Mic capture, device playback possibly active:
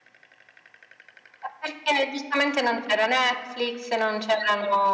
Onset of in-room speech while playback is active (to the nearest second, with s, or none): none